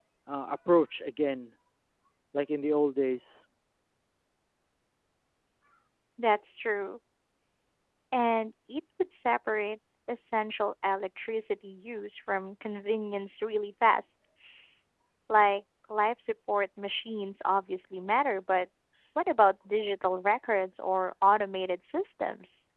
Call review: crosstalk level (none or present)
none